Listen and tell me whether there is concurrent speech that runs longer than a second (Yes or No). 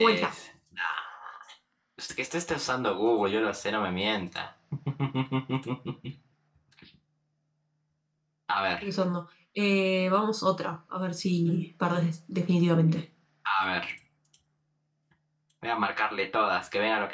No